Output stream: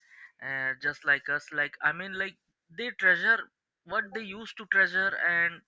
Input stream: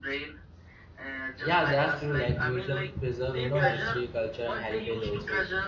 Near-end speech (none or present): present